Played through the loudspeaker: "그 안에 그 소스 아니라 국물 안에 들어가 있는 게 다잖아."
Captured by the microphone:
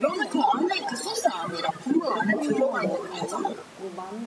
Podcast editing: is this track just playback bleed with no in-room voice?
No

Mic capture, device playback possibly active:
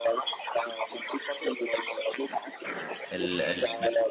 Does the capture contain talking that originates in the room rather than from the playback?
Yes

